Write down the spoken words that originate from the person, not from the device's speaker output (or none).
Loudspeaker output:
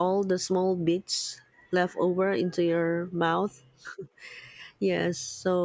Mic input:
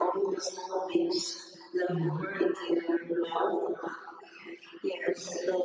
Mhm,